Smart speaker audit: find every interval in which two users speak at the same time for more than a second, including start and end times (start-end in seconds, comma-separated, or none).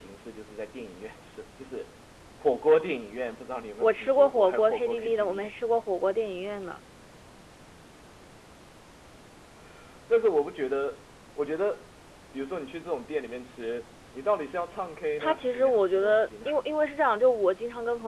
3.8-5.4, 15.2-16.5